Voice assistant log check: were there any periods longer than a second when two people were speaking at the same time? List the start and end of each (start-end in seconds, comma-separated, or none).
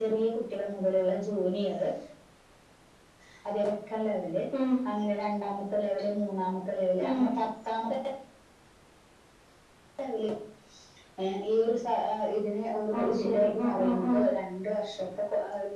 13.0-14.3